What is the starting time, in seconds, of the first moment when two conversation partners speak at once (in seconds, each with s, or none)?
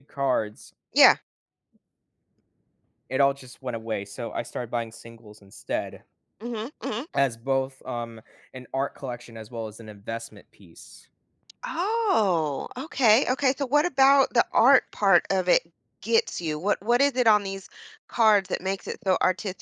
none